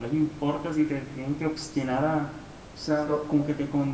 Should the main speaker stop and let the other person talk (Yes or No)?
No